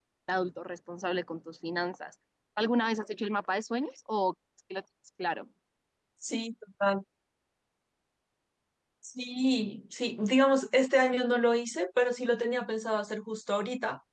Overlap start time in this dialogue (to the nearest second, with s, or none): none